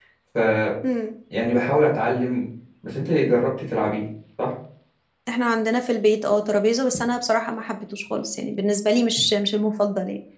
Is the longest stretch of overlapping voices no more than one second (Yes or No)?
Yes